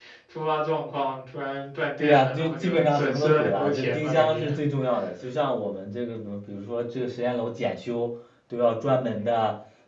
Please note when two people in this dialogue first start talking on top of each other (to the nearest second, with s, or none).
2 s